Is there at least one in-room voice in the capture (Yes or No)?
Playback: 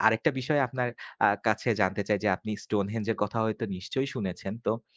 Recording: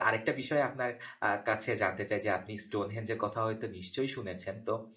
No